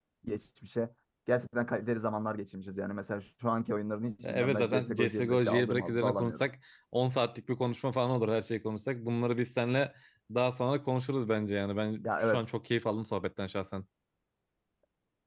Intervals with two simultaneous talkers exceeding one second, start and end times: 4.2-6.5

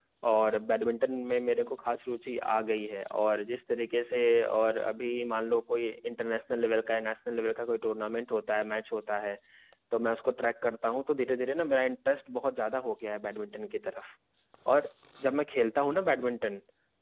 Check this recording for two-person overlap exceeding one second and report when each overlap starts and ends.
none

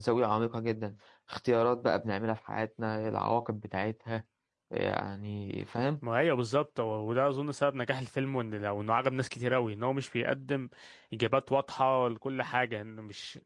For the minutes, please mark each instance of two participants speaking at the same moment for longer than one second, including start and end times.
none

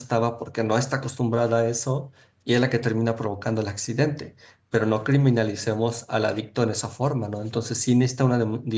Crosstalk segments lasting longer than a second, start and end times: none

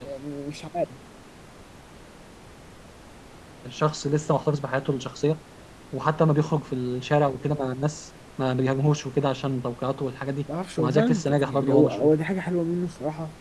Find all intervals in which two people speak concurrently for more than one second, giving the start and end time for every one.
10.8-12.1

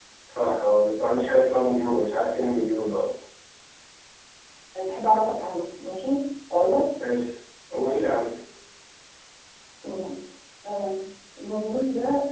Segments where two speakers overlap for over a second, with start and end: none

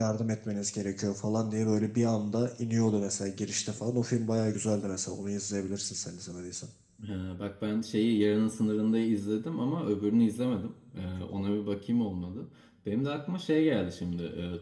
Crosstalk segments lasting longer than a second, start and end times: none

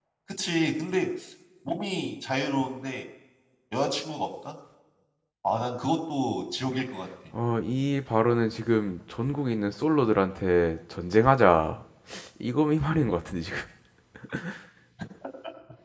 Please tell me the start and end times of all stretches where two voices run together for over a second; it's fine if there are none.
none

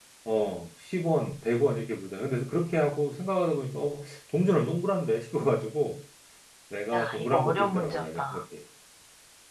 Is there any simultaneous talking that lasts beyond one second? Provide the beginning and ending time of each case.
6.9-8.4

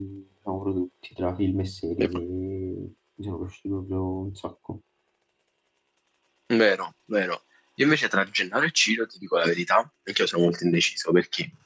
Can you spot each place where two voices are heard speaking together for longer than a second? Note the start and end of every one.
none

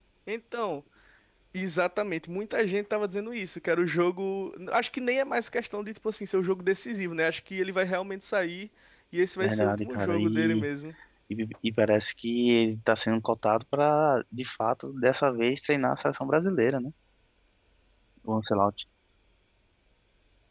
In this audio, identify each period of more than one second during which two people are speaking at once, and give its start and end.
9.4-10.7

